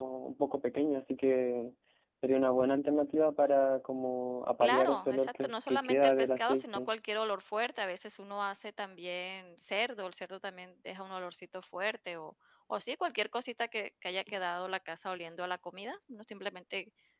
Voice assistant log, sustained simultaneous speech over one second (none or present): present